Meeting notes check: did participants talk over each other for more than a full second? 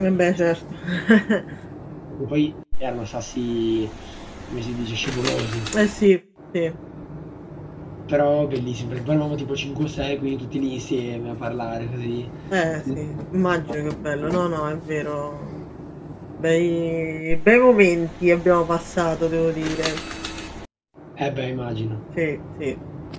No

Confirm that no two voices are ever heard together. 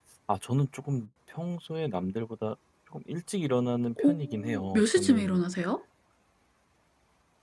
No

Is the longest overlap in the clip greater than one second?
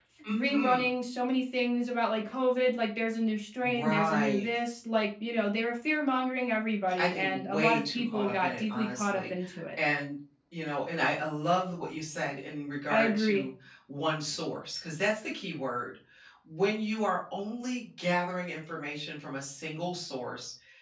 Yes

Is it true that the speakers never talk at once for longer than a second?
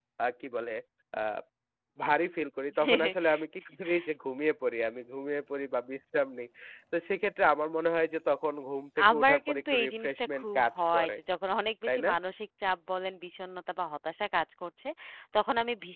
No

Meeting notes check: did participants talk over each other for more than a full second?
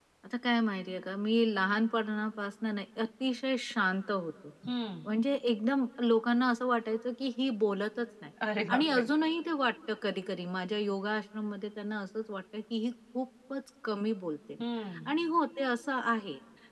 No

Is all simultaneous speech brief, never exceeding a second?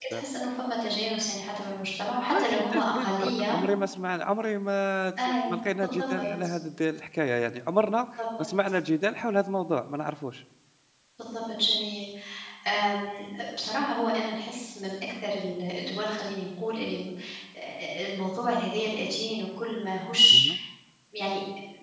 No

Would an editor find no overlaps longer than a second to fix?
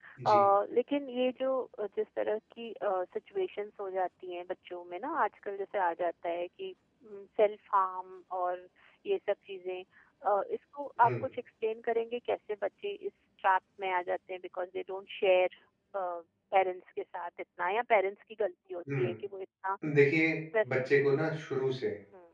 Yes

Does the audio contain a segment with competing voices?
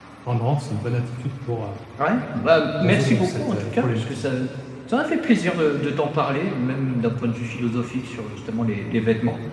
Yes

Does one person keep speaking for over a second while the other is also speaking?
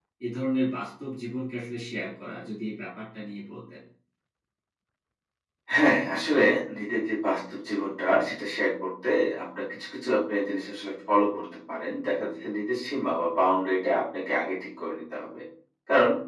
No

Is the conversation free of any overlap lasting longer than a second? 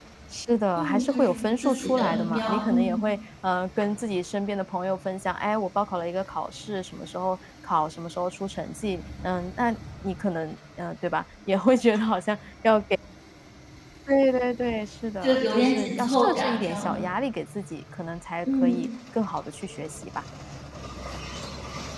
No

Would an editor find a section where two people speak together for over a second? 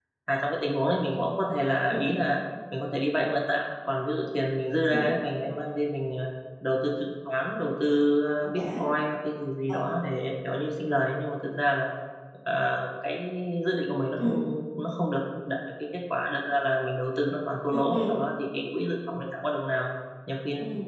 No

